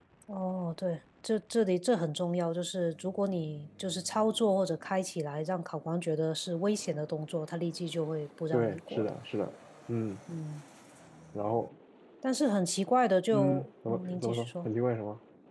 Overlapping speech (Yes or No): Yes